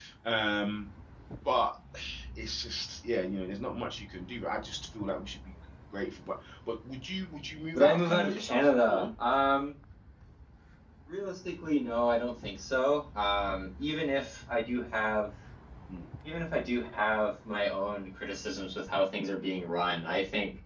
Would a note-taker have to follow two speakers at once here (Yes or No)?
Yes